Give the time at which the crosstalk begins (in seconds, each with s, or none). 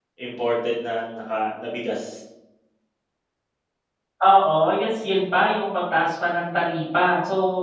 none